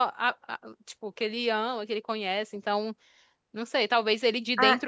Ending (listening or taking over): listening